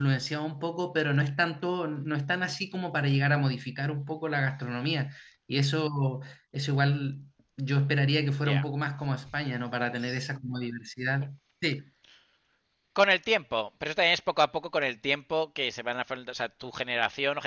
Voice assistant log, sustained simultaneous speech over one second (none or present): none